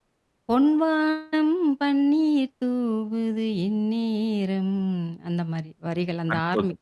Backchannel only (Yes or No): No